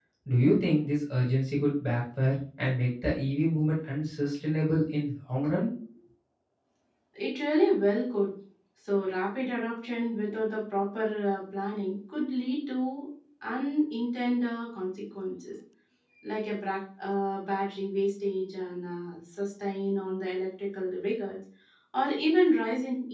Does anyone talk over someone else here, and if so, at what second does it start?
none

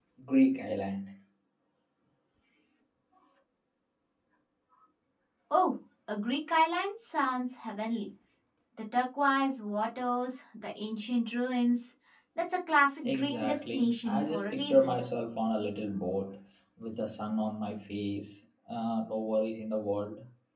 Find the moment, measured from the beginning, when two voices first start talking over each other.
13.0 s

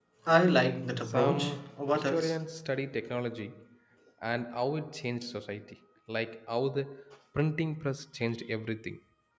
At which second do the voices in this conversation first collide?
1.0 s

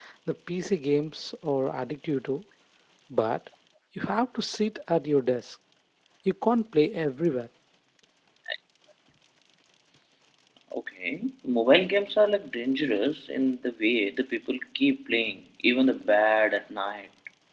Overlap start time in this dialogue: none

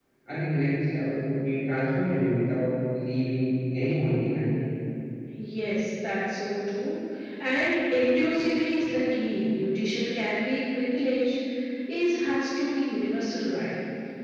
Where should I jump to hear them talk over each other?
none

